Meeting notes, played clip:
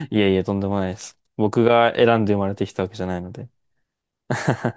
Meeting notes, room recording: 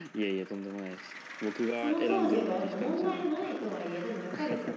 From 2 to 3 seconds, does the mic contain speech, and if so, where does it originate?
both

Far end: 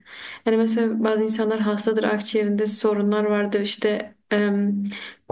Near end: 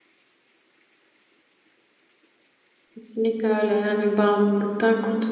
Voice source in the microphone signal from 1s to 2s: neither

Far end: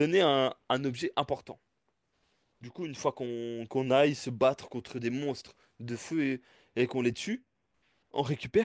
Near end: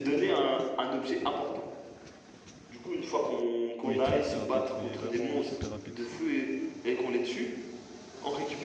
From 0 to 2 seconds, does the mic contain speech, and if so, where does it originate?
echo only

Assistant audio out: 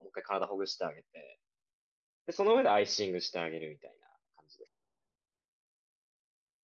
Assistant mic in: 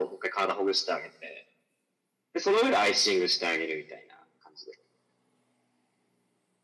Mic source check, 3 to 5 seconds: echo only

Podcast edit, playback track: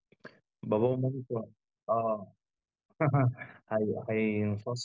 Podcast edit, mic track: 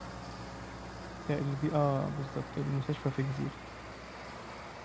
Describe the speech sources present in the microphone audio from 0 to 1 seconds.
neither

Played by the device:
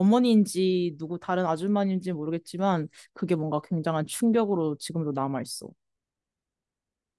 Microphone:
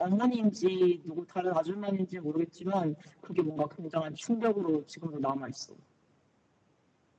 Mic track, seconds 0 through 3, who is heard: echo only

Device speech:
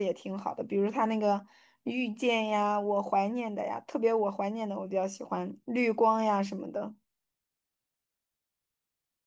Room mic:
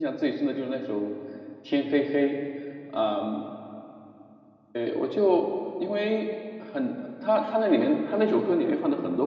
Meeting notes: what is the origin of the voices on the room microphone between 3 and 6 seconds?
user only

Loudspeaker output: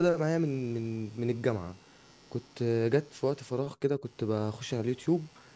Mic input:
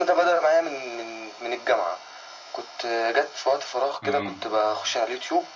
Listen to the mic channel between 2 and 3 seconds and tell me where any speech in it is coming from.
echo only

